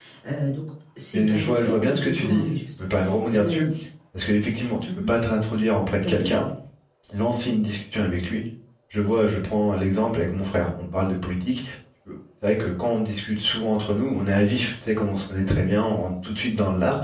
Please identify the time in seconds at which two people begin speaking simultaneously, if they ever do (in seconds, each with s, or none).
1.1 s